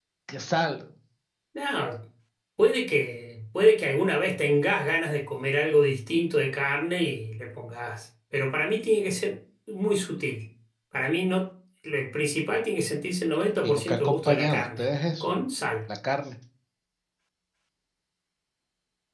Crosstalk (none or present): present